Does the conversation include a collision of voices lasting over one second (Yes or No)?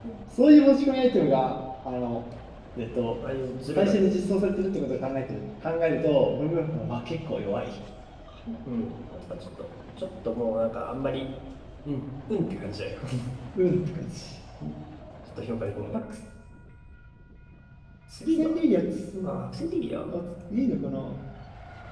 No